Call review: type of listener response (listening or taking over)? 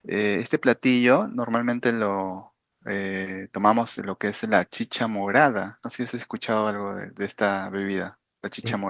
taking over